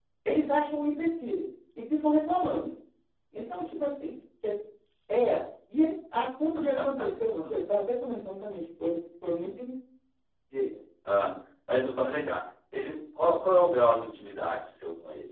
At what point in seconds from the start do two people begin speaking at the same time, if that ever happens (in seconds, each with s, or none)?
none